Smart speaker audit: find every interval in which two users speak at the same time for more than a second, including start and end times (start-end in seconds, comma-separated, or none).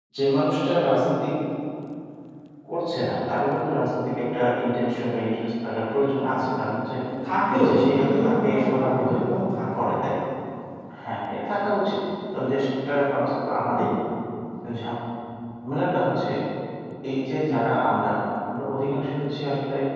7.5-9.1